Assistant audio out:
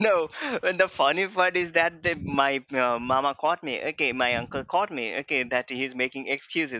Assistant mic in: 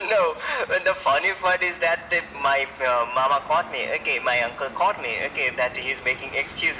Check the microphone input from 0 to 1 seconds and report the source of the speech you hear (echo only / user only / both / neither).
echo only